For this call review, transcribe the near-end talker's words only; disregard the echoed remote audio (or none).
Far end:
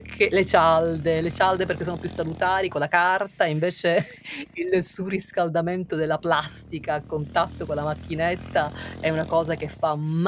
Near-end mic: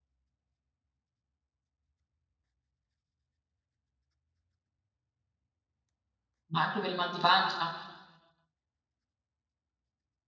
Ma anche per i mal di pancia.